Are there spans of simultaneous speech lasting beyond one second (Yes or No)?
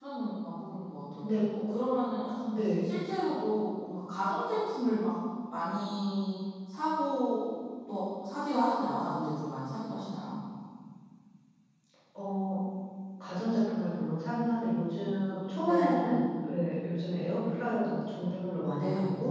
No